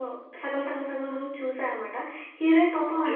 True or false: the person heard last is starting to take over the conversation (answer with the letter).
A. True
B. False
B